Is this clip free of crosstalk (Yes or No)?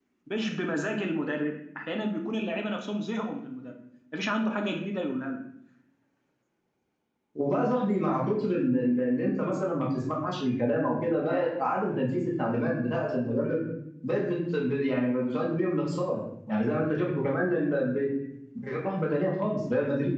Yes